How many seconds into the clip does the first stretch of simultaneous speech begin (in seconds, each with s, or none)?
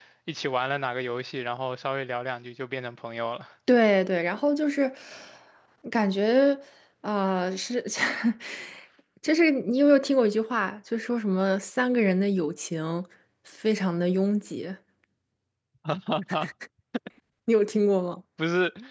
none